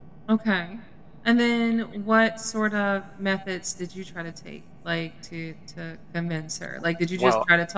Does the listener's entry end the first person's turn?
No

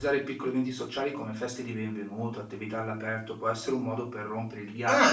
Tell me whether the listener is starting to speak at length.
Yes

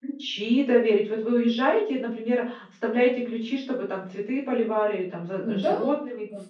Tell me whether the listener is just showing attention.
No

